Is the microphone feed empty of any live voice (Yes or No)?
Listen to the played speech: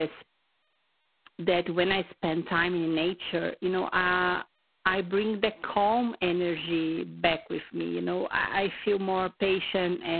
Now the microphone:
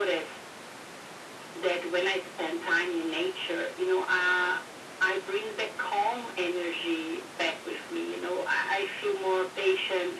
Yes